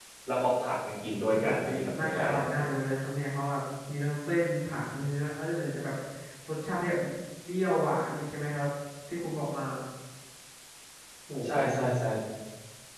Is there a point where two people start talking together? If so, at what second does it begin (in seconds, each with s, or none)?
1.3 s